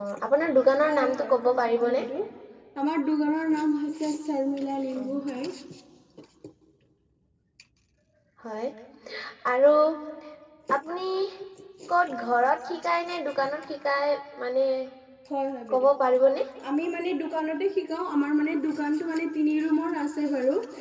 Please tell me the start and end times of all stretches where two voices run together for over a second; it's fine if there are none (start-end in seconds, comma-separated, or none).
0.8-2.0